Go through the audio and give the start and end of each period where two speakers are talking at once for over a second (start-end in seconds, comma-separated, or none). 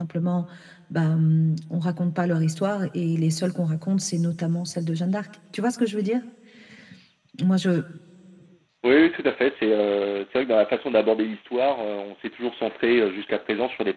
none